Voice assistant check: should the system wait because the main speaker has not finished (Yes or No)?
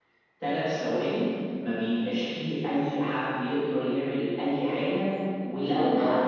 Yes